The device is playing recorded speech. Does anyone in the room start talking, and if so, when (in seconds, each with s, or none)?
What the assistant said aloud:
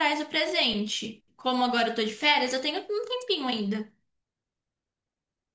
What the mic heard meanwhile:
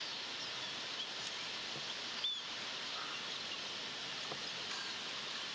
none